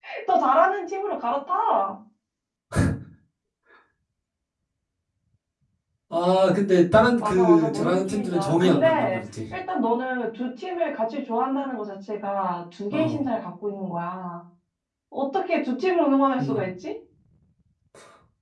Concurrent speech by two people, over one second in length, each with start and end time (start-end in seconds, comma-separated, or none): 7.2-9.2